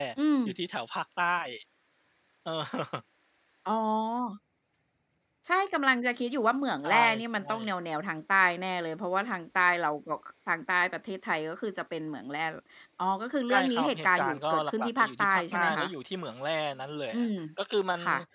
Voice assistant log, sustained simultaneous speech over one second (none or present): present